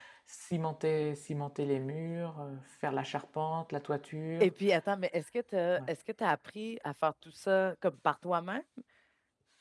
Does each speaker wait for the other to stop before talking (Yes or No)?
Yes